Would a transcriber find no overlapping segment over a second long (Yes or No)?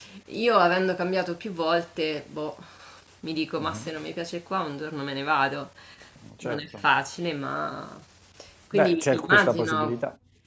No